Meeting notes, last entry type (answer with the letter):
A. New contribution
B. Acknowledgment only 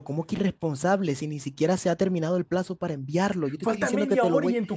A